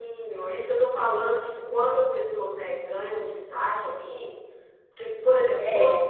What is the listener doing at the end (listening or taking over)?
listening